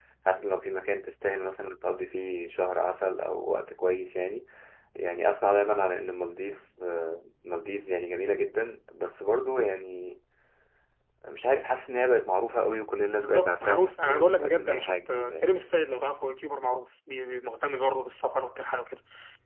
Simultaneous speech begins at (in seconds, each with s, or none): 13.1 s